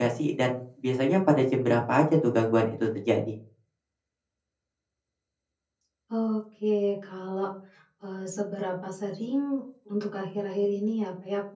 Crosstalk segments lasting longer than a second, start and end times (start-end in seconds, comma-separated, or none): none